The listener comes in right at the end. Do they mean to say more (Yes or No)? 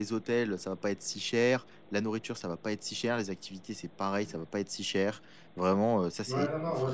Yes